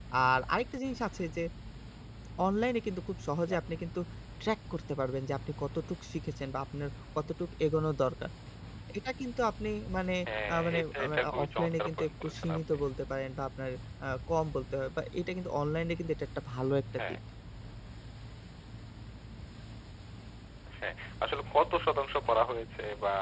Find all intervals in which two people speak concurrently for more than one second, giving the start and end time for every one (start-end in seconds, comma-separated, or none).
10.5-12.6